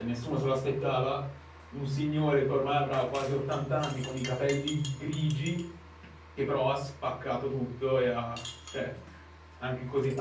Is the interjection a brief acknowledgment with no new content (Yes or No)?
No